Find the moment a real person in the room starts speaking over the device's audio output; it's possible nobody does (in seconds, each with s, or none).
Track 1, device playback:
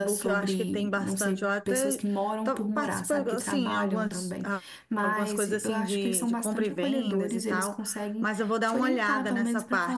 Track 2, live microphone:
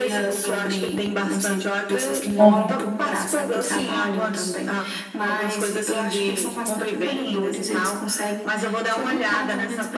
2.4 s